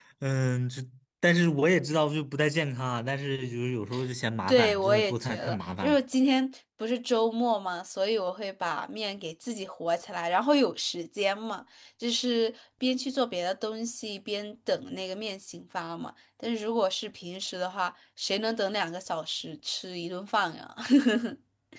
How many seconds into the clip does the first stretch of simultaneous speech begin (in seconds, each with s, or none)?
4.5 s